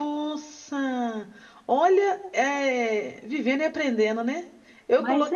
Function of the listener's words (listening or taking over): listening